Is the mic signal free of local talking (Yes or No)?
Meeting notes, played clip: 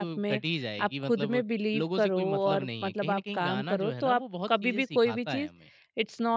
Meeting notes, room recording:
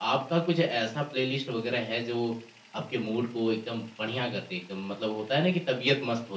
No